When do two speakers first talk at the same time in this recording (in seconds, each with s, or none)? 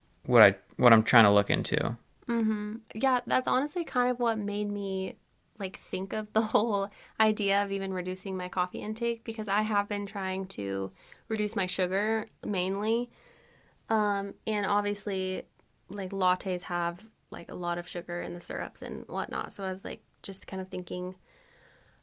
none